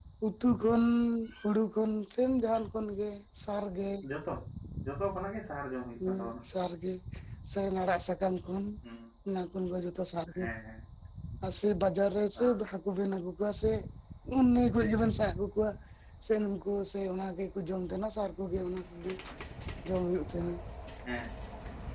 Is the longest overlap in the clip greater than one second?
No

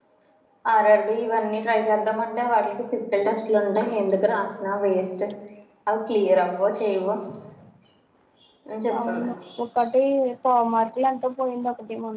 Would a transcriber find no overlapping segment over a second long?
Yes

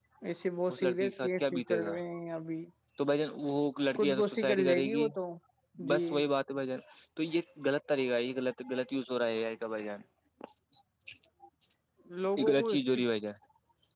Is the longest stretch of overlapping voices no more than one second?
No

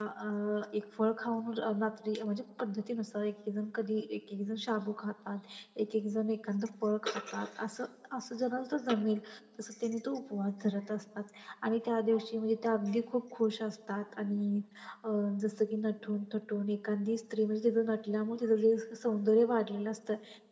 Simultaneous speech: No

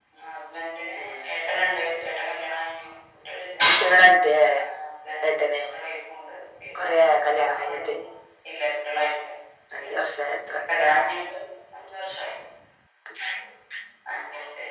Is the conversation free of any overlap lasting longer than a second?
Yes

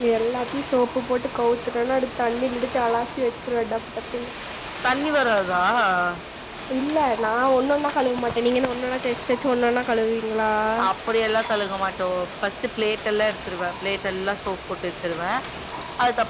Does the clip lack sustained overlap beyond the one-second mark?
Yes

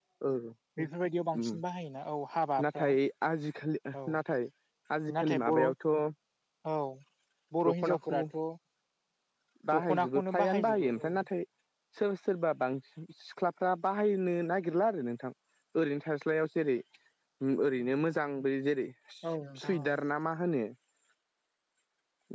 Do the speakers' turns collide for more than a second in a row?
Yes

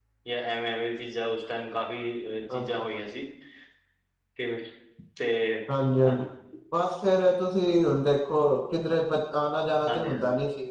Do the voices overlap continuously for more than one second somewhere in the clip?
No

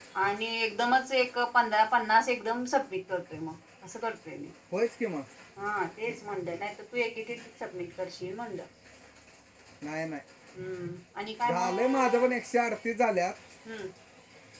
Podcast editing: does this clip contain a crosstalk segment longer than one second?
No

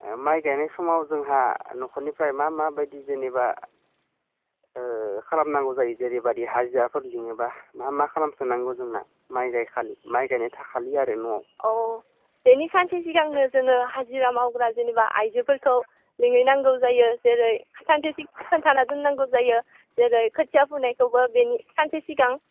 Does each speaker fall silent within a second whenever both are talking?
Yes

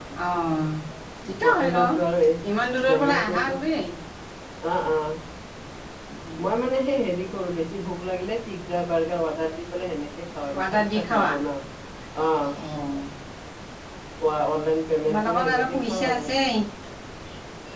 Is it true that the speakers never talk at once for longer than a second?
No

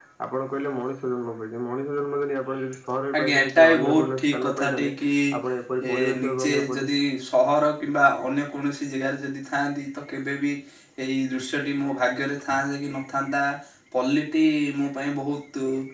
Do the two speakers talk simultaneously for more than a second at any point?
Yes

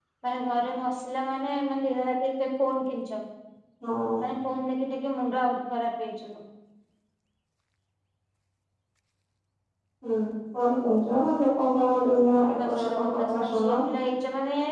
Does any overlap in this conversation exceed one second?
Yes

